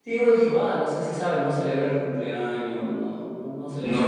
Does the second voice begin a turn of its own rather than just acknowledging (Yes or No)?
Yes